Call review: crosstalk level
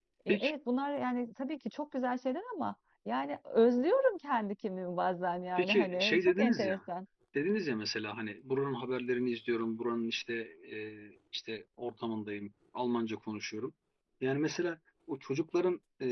present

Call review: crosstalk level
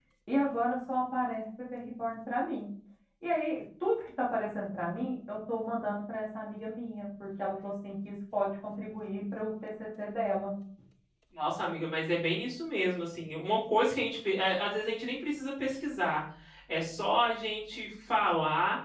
none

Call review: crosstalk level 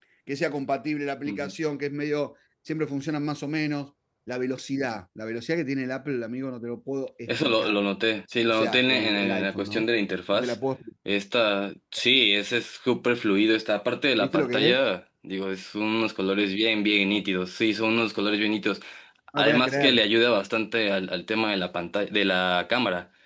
present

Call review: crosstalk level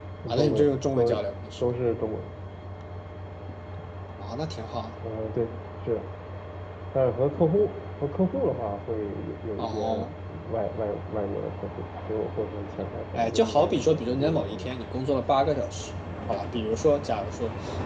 present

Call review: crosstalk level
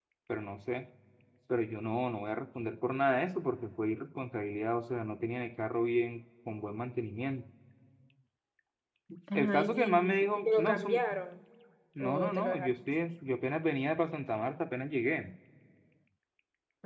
present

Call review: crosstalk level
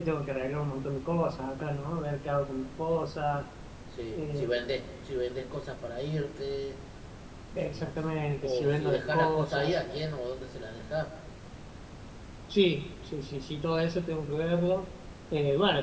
present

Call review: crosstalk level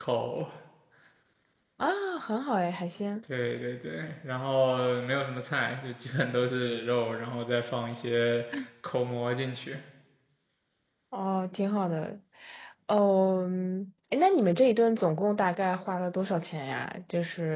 none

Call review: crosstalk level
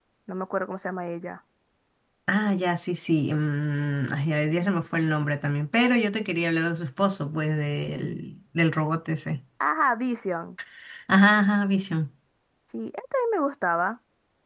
none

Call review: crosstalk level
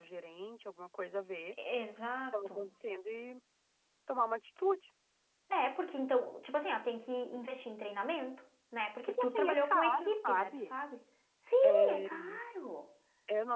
present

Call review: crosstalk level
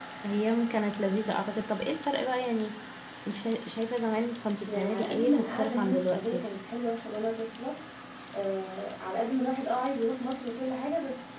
present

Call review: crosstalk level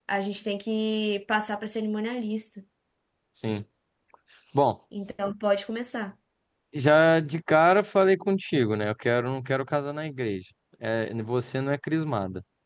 none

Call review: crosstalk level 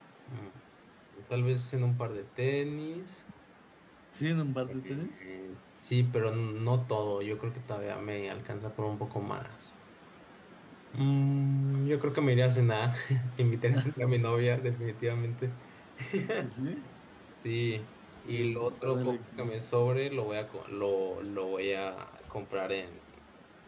present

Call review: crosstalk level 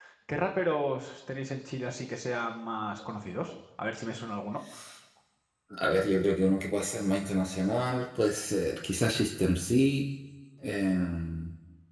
none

